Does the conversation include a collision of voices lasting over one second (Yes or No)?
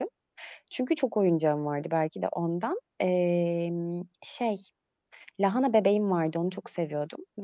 No